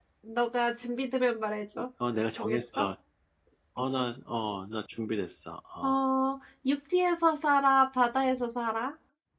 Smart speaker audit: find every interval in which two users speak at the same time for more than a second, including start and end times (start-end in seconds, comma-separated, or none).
none